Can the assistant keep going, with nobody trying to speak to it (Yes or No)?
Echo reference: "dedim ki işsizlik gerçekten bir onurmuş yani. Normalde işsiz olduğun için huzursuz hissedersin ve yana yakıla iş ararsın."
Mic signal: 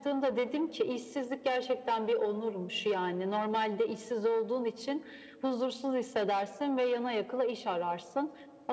Yes